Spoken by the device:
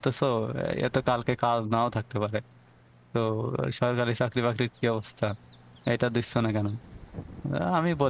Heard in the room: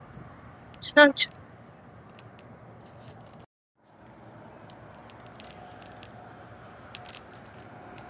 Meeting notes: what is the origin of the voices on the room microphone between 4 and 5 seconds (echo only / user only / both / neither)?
neither